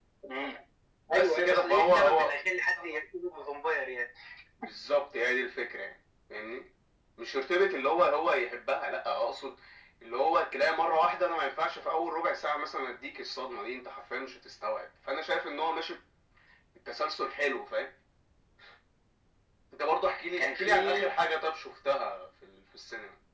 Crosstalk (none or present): present